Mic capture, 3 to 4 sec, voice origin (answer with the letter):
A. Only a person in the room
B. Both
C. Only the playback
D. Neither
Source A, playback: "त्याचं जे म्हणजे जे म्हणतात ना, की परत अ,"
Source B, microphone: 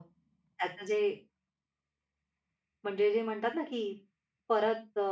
C